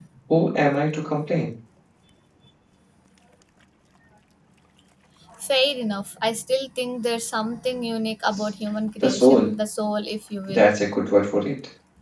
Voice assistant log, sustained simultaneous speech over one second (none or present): none